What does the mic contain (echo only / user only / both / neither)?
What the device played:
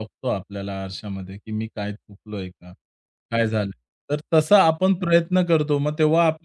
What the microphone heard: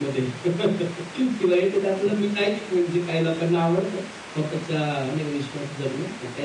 user only